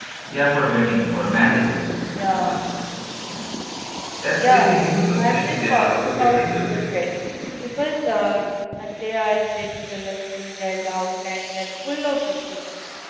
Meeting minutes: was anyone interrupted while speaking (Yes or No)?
Yes